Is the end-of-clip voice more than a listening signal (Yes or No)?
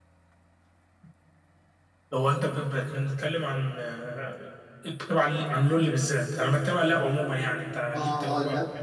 Yes